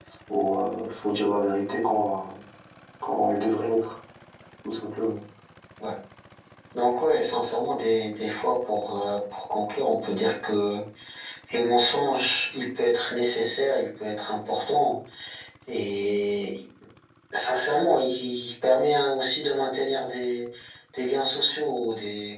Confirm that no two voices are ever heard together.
Yes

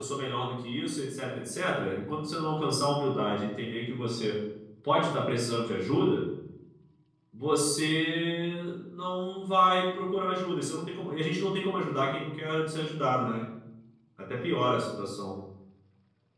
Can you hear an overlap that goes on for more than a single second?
No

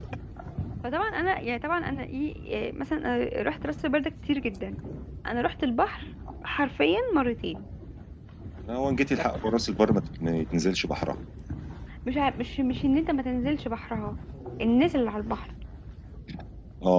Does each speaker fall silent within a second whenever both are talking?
Yes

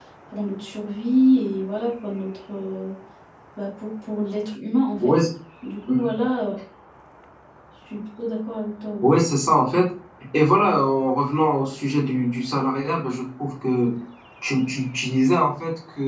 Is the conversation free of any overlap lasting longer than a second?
Yes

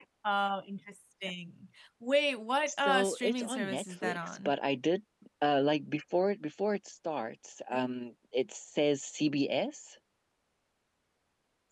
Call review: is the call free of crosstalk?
No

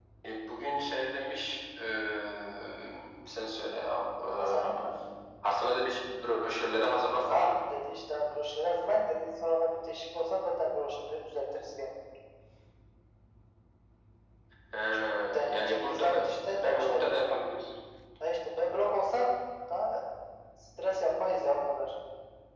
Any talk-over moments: Yes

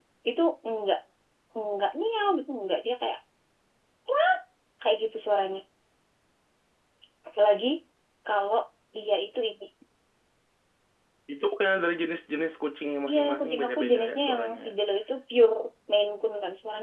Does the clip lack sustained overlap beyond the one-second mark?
No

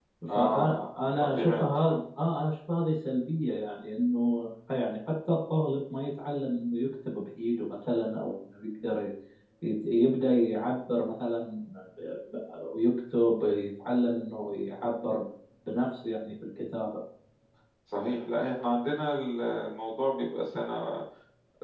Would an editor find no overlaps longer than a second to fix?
No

